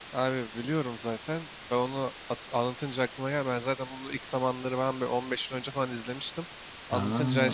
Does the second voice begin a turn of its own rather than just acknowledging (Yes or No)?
No